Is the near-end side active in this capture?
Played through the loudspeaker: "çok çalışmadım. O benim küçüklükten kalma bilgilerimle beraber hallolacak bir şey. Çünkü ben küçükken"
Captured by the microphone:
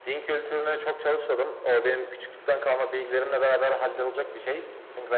No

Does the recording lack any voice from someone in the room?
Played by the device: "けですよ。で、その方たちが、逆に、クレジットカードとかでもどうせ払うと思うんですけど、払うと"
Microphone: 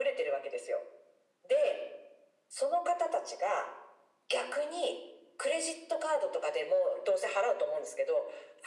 Yes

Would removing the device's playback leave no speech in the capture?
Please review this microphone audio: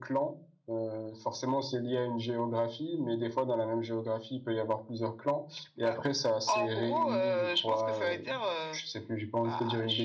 Yes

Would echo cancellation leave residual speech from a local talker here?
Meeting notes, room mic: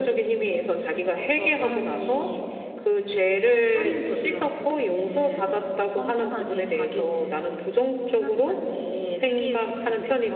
No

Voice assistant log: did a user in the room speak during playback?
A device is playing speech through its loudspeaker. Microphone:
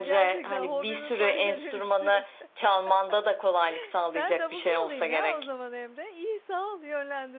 Yes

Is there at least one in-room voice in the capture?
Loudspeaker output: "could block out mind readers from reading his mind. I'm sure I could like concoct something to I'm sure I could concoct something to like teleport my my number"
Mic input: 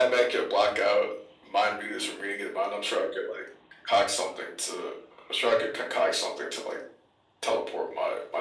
No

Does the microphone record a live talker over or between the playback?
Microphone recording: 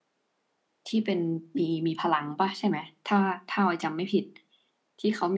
Yes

